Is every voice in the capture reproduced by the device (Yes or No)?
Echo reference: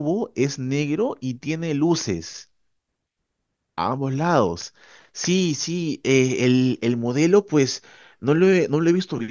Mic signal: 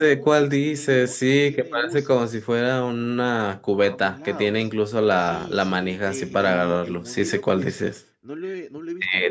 No